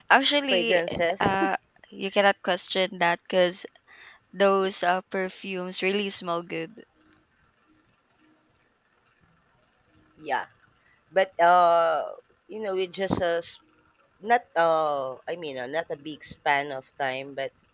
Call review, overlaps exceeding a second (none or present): none